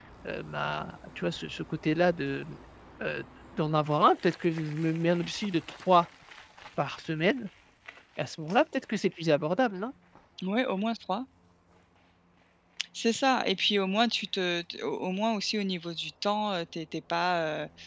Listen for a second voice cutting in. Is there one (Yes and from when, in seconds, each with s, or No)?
No